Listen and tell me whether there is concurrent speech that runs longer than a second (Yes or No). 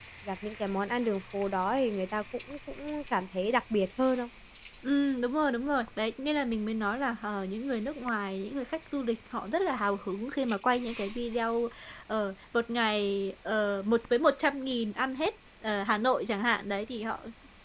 No